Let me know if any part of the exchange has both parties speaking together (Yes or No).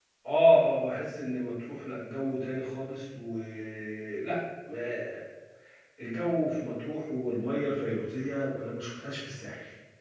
No